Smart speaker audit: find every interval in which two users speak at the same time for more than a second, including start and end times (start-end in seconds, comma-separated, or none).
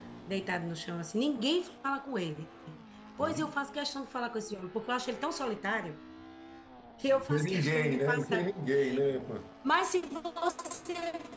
7.1-8.5